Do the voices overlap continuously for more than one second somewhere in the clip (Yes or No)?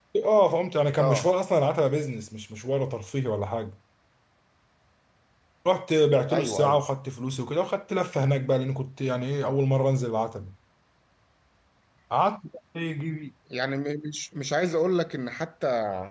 No